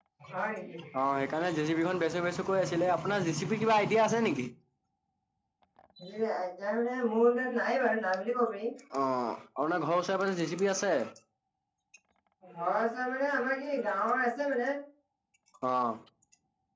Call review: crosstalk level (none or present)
none